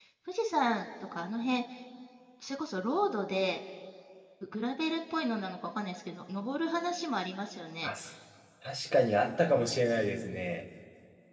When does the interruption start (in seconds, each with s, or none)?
none